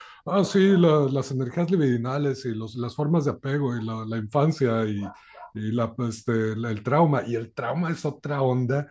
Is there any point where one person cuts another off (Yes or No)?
No